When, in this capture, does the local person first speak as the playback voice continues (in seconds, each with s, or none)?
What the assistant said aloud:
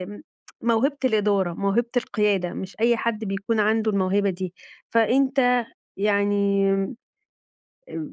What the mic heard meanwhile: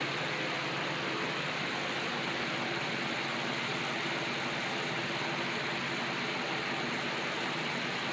none